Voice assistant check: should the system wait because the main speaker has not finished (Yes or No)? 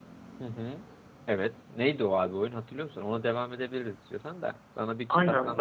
No